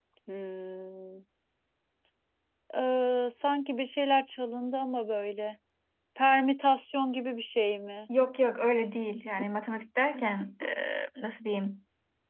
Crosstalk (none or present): none